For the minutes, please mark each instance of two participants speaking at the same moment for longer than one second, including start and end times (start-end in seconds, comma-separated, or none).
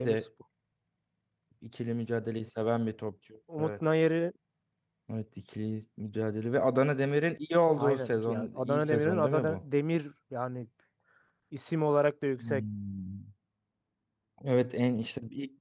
7.8-9.6